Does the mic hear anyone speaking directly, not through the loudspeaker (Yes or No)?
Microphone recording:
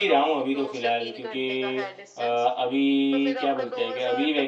Yes